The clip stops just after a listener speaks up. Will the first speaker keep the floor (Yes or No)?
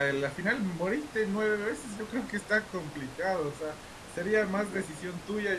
Yes